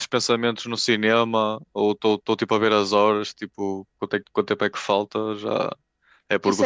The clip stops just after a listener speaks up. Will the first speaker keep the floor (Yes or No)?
No